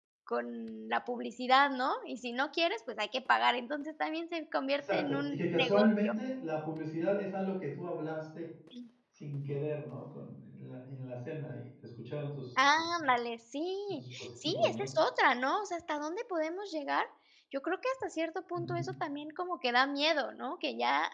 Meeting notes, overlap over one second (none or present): present